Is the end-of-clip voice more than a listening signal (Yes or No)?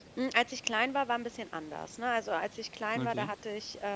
No